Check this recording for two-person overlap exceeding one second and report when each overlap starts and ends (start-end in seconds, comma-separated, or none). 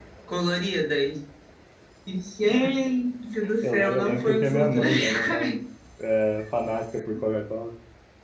3.6-5.5